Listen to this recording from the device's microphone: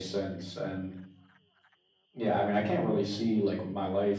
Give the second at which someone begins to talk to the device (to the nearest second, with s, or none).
none